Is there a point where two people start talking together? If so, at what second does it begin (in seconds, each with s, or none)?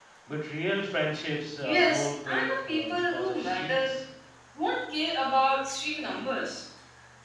1.6 s